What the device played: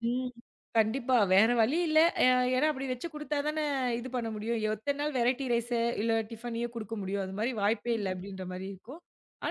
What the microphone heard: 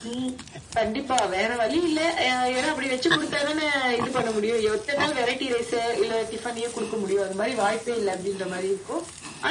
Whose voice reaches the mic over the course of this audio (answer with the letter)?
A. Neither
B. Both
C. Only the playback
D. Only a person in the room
C